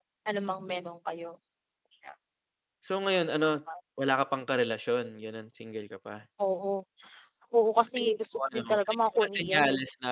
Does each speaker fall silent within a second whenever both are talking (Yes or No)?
No